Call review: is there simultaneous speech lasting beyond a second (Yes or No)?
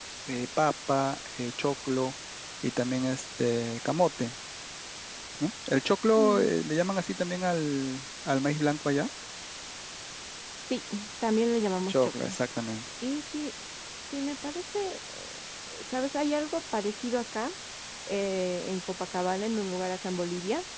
No